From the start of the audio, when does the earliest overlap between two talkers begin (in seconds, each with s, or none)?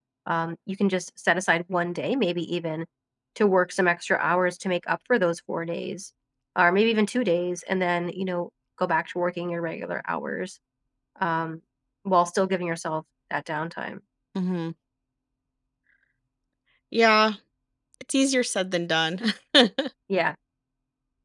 none